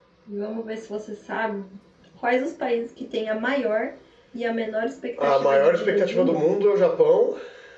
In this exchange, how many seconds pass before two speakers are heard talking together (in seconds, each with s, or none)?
5.2 s